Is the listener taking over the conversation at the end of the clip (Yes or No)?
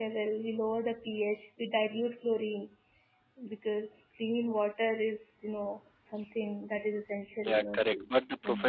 Yes